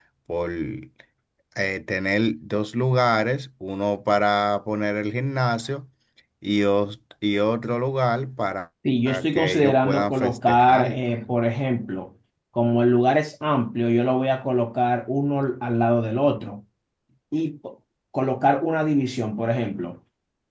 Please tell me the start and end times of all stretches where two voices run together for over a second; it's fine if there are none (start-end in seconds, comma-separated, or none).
9.3-11.0